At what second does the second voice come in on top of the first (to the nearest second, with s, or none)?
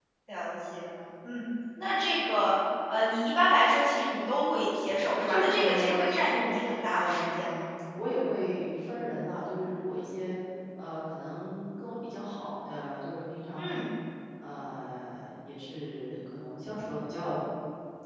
5 s